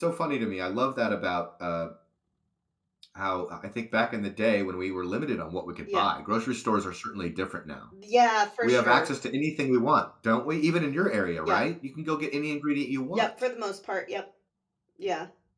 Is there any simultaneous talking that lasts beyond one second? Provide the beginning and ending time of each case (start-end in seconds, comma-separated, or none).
none